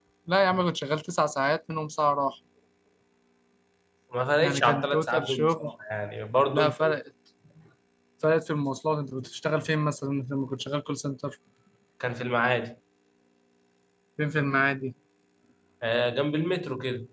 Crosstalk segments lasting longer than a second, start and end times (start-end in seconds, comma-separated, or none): 4.4-5.7